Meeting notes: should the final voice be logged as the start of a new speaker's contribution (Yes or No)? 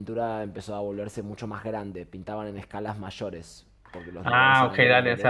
Yes